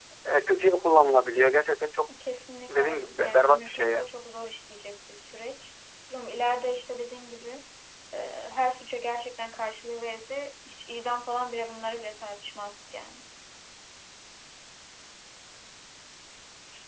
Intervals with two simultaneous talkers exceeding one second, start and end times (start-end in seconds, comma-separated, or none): 2.7-4.0